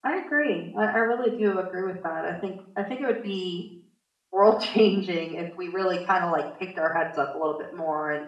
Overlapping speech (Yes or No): No